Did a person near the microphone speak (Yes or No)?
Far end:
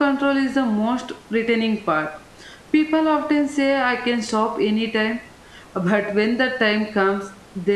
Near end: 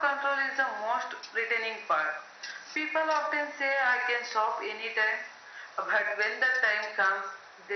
No